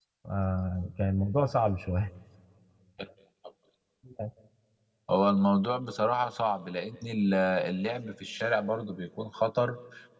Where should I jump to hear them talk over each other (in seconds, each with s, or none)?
none